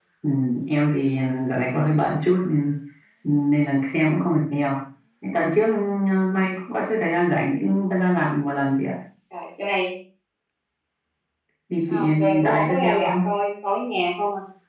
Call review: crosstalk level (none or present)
present